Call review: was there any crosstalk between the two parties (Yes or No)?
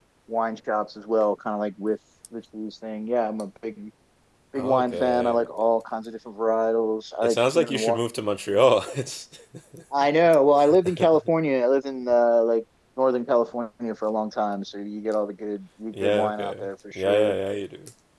Yes